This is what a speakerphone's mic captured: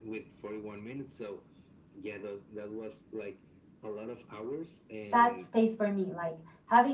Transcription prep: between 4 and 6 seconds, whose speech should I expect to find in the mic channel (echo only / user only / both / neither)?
both